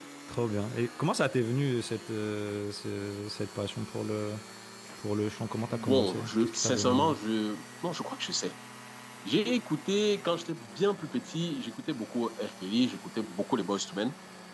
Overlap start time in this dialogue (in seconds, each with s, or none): 5.7 s